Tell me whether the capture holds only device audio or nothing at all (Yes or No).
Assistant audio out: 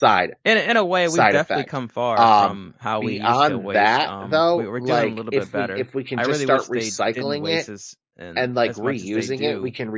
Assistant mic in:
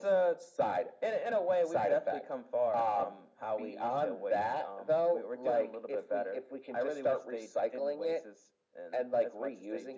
Yes